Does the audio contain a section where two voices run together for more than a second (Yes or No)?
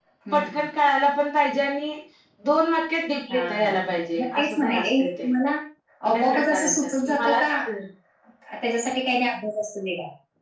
Yes